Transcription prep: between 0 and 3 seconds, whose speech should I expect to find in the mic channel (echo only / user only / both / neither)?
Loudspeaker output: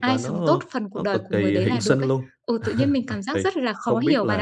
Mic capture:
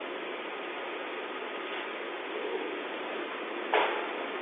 neither